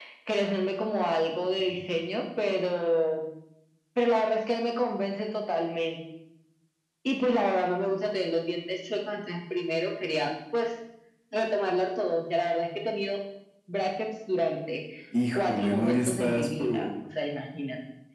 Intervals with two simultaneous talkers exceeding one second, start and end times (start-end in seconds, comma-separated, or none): 15.3-16.9